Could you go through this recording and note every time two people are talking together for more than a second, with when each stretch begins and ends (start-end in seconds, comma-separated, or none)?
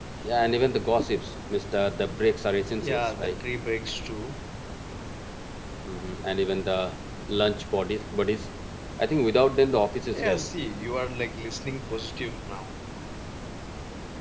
none